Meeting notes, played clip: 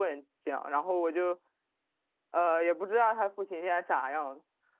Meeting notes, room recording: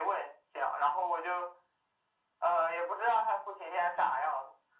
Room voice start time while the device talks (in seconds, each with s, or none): none